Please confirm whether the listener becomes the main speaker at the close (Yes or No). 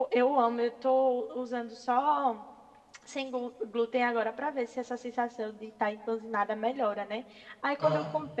No